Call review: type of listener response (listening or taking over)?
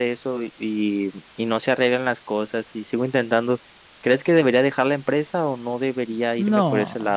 taking over